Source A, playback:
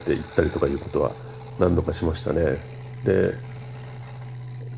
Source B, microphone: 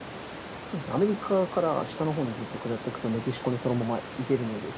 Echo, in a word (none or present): none